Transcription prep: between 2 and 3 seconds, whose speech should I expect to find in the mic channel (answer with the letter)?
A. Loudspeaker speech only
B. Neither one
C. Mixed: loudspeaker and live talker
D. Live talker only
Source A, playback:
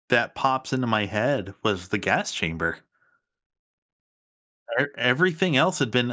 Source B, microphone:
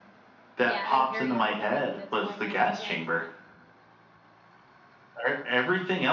C